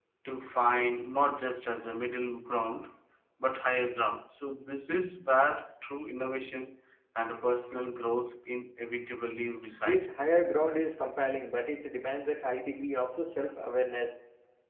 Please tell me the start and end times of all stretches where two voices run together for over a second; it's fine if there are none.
none

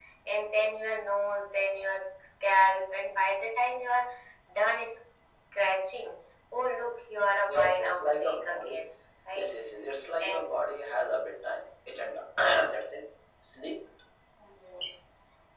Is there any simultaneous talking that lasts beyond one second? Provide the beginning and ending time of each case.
7.5-8.8

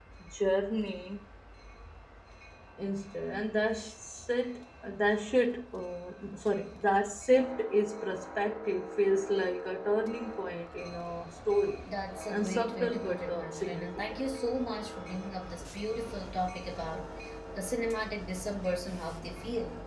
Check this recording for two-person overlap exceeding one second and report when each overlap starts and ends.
12.3-14.2

